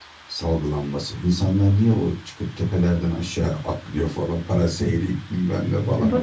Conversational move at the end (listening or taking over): taking over